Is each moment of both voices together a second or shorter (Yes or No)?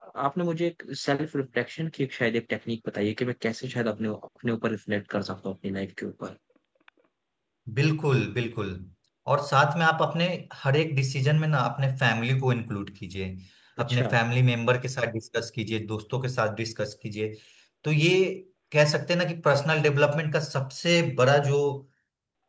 Yes